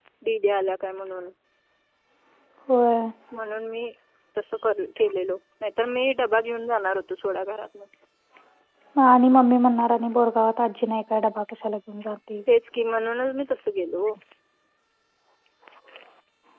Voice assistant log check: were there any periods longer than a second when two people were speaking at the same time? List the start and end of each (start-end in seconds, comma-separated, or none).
none